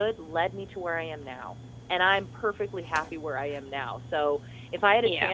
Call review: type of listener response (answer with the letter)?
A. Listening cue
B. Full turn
A